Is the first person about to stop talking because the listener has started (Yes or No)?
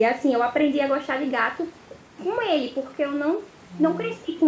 No